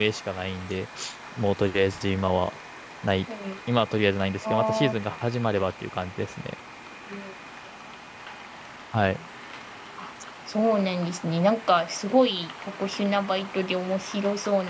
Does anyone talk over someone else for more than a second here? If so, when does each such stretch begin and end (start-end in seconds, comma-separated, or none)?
none